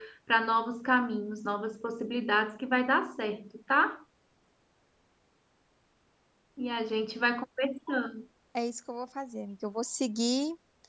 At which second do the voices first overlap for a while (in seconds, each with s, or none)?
none